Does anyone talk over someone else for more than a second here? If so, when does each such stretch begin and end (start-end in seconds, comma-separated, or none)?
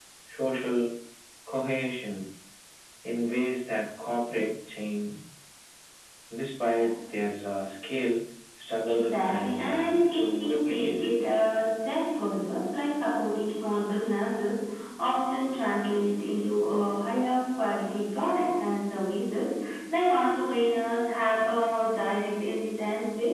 8.8-11.1